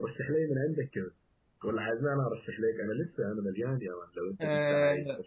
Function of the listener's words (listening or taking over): taking over